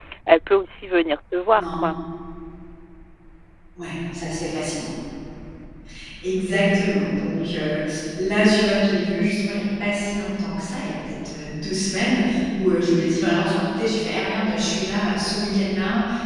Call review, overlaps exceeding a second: none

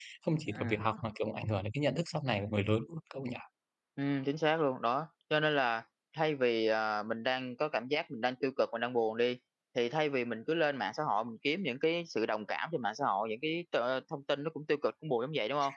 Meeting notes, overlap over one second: none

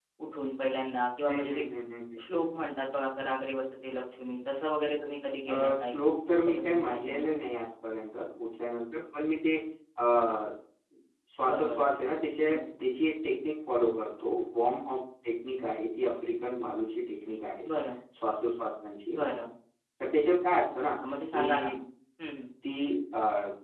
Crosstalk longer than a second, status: present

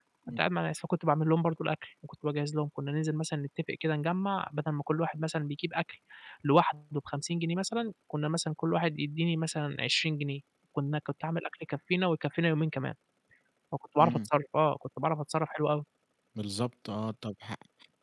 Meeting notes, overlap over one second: none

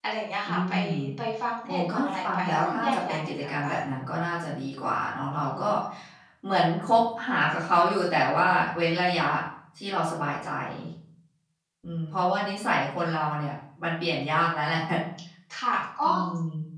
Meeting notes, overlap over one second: present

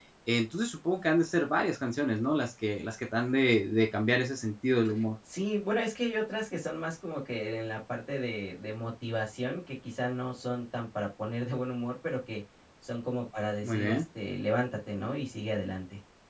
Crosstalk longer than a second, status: none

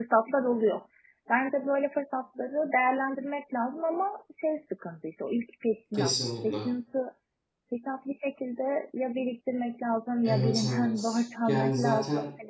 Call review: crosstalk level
present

